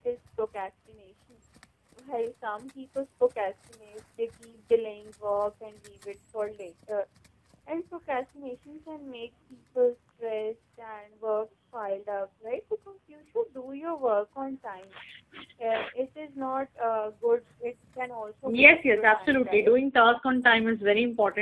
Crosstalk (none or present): present